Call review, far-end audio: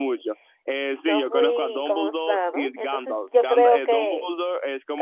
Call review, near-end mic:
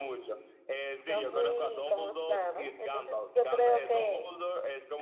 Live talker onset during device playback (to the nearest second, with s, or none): none